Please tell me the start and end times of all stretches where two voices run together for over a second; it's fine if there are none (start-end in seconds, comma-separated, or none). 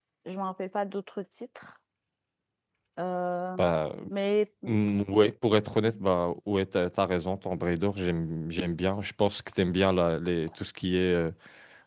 none